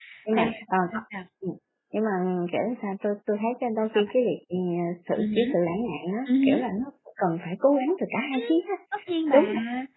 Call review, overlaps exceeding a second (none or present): none